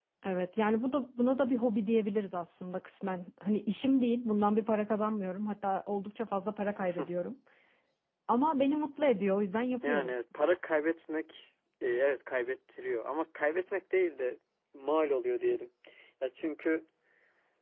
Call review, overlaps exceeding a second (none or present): none